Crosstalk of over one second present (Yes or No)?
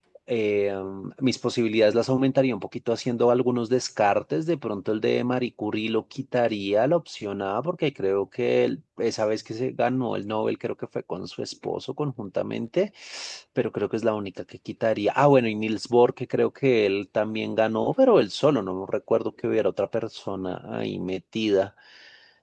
No